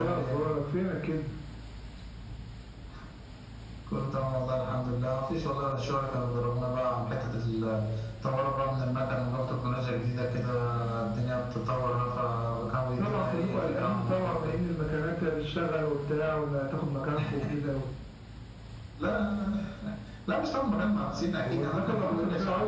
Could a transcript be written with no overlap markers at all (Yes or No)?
No